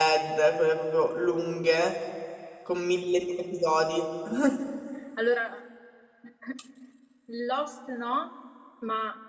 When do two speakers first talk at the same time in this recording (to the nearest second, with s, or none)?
none